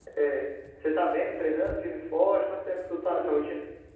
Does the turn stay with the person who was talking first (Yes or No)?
No